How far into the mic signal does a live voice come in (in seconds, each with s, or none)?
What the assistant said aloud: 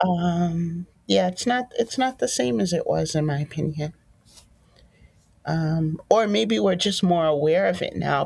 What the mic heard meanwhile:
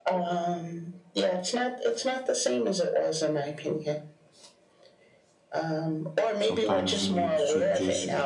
6.5 s